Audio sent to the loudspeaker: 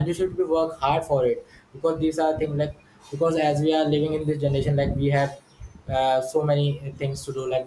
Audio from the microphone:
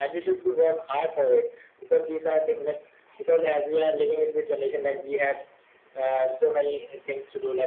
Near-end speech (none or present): none